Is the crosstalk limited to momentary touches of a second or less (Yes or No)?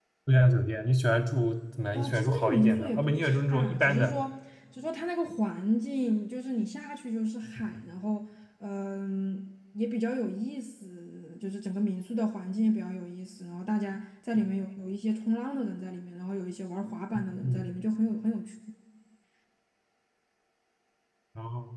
No